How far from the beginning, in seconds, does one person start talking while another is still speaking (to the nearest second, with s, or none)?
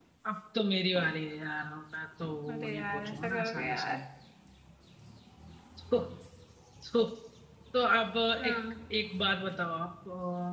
3 s